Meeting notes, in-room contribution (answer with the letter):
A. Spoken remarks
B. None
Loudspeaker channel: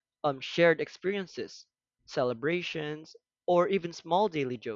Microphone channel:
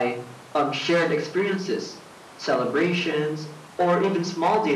B